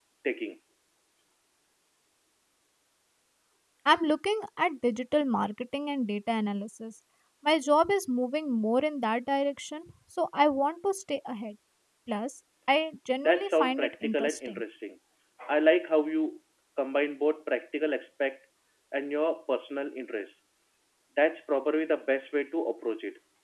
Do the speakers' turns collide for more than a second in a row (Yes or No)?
Yes